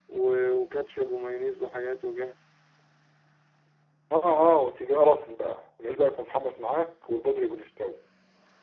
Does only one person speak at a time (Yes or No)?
Yes